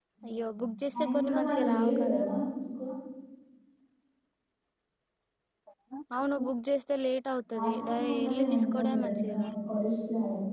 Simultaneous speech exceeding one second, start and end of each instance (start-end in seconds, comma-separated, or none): 0.9-2.2, 7.5-9.5